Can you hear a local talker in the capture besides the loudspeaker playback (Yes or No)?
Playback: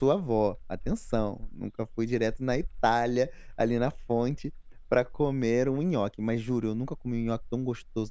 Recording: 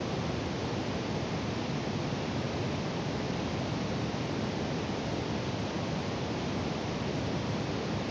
No